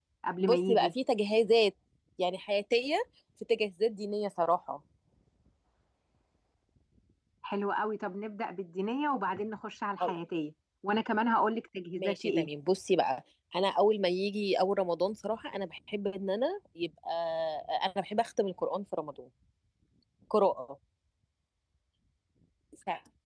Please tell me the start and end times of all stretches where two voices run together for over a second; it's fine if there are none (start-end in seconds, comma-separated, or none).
none